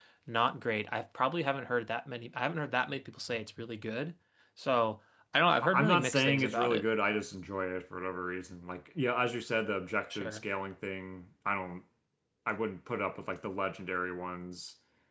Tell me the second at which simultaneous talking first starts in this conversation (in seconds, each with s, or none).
5.6 s